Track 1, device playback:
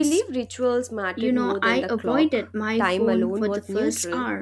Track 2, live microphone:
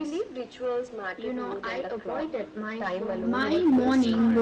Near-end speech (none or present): present